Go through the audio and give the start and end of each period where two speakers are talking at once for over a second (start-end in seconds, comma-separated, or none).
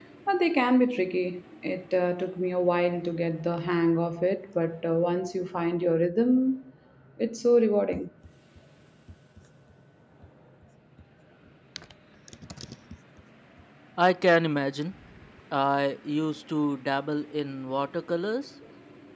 none